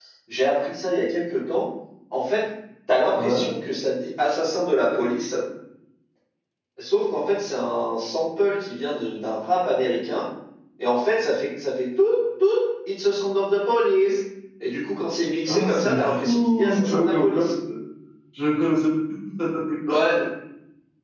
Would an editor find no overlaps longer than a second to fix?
No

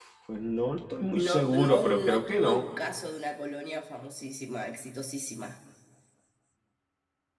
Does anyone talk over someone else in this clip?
Yes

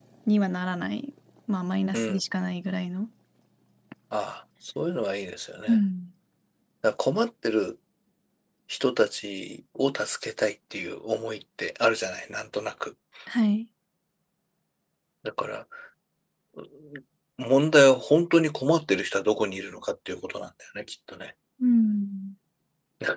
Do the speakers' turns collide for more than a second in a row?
No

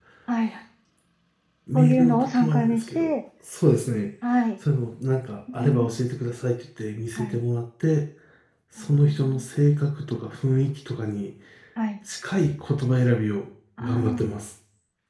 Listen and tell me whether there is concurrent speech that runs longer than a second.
Yes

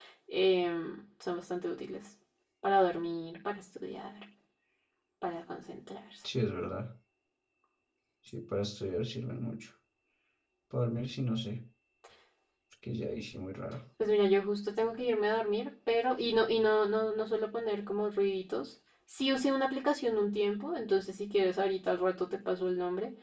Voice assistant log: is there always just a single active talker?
Yes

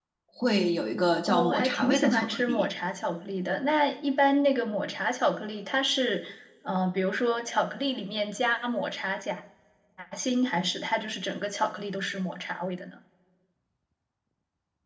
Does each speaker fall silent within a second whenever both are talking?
No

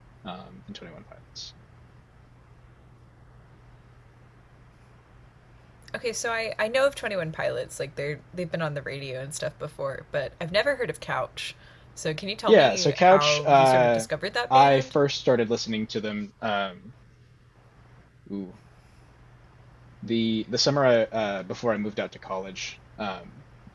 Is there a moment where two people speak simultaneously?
Yes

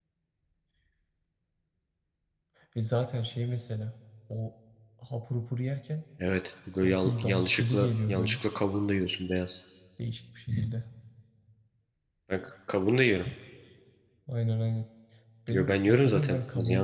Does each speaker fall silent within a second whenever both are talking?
No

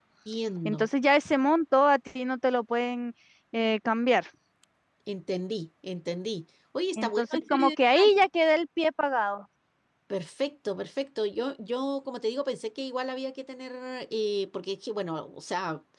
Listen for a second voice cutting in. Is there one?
Yes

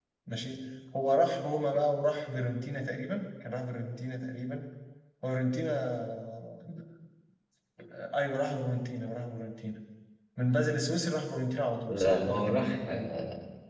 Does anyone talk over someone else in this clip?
Yes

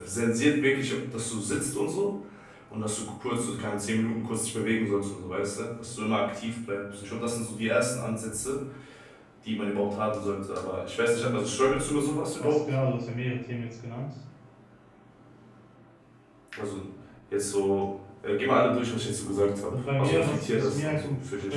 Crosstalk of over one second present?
Yes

